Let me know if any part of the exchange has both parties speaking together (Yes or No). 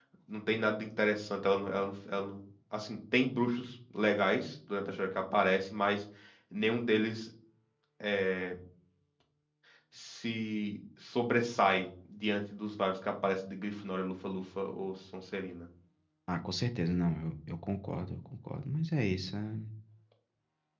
No